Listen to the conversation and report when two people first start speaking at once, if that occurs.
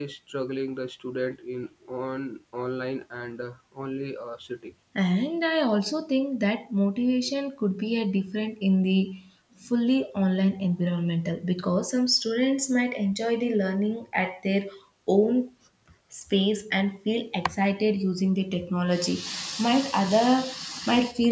none

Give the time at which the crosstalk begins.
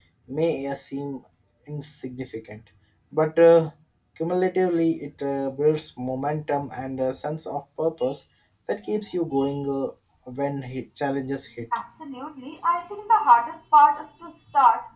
none

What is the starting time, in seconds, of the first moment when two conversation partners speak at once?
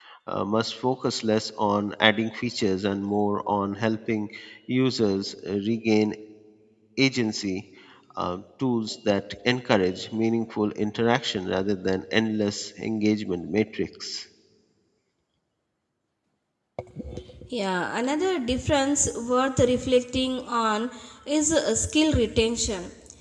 none

